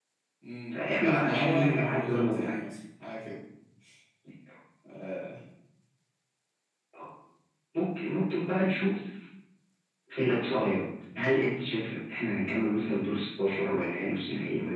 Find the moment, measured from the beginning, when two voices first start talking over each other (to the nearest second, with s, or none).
1 s